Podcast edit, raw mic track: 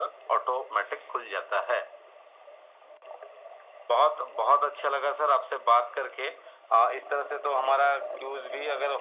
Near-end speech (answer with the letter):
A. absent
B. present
A